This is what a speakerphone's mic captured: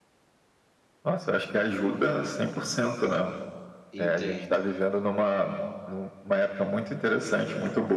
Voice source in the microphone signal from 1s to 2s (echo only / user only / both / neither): echo only